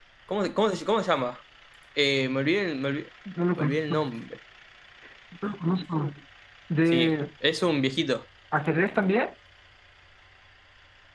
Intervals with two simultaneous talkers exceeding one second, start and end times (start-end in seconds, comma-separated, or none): none